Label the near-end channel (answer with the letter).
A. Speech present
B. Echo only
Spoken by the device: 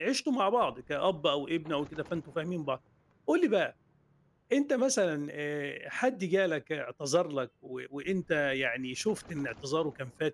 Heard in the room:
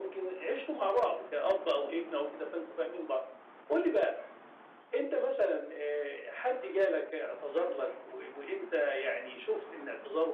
B